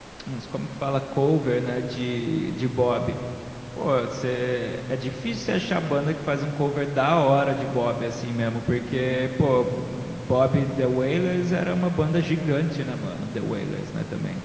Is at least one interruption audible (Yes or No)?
No